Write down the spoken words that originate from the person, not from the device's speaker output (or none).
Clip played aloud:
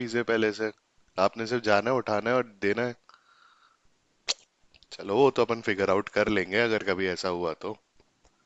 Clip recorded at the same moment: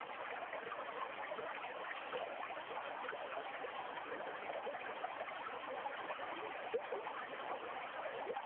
none